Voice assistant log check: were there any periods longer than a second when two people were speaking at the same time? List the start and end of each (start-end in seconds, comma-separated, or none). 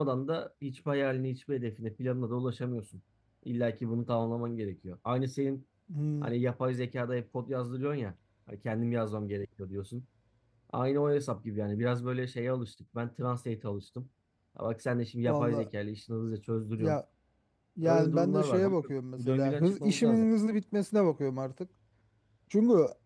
17.8-20.2